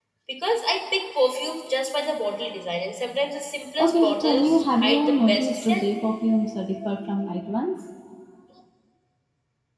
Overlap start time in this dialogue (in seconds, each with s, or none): 3.8 s